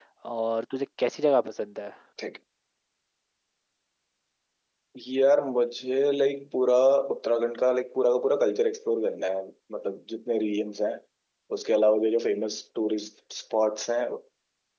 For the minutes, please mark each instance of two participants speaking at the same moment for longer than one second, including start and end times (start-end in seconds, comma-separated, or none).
none